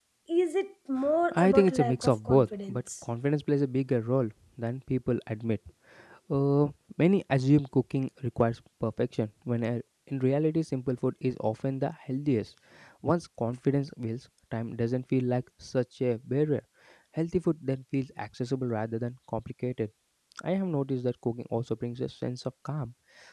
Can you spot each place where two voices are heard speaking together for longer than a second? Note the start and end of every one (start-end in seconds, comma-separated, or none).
1.3-3.0